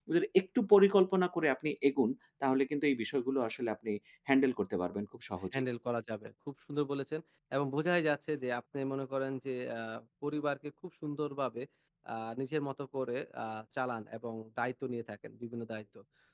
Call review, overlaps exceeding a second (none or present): none